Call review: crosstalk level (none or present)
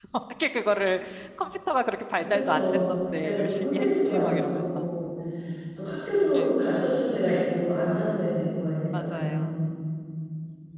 present